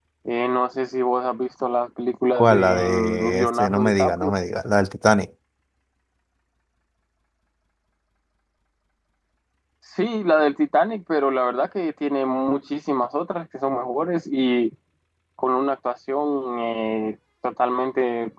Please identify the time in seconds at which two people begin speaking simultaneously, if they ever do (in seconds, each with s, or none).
2.4 s